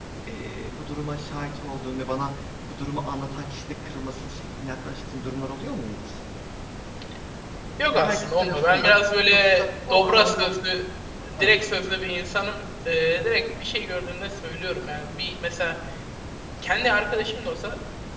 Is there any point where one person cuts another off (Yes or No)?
Yes